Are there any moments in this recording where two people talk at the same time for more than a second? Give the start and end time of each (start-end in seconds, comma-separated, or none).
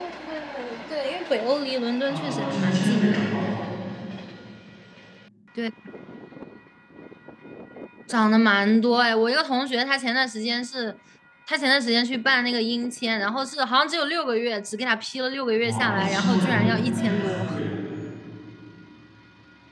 2.1-3.4, 15.6-17.5